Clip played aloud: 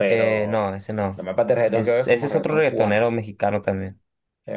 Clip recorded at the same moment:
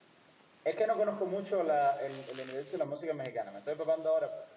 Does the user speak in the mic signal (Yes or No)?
Yes